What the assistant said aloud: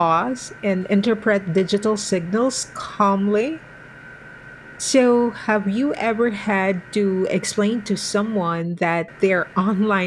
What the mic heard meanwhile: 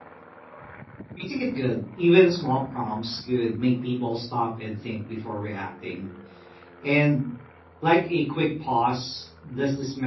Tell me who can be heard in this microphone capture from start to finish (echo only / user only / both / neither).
user only